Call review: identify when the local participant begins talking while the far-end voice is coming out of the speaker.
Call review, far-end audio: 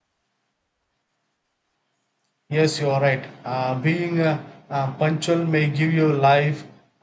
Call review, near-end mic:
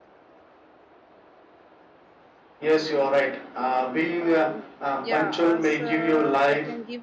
4.2 s

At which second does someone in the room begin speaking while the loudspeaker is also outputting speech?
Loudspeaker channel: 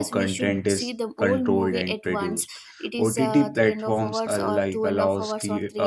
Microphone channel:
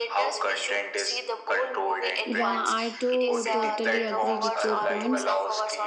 2.2 s

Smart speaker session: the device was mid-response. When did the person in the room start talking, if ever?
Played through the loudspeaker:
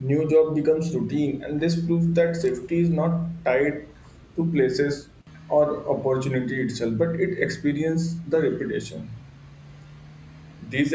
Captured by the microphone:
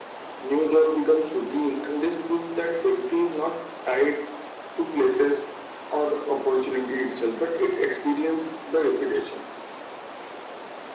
none

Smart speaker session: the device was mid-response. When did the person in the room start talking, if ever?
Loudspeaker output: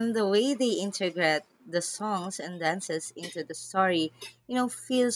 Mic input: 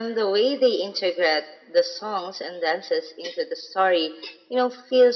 none

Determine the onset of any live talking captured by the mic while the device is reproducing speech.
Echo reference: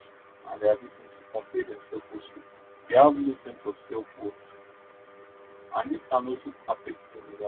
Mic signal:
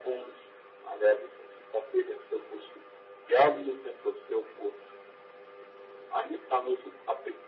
none

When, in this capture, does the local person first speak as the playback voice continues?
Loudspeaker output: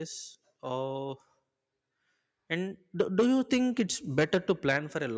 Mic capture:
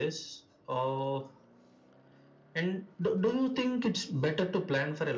none

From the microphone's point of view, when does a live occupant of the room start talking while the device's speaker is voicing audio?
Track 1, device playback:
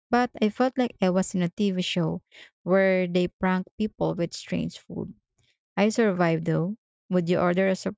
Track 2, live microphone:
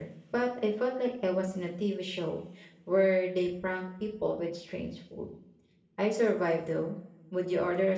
none

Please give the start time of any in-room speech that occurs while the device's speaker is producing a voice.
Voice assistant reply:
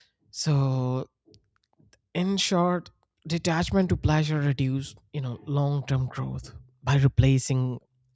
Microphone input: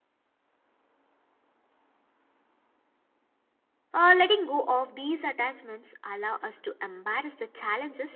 3.9 s

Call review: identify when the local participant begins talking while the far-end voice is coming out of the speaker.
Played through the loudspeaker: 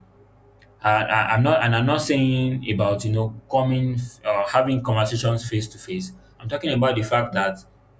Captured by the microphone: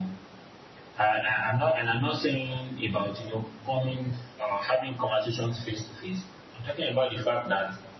none

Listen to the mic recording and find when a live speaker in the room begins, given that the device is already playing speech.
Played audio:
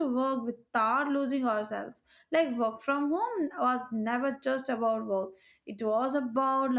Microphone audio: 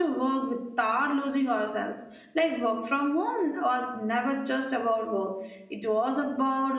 none

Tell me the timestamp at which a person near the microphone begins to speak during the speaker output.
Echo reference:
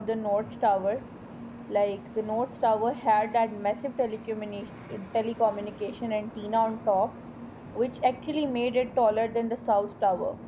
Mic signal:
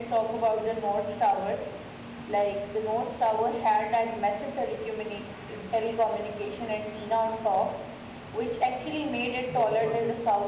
9.5 s

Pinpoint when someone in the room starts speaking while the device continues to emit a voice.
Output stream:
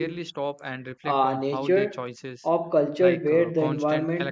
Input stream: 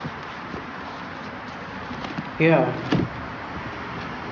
2.4 s

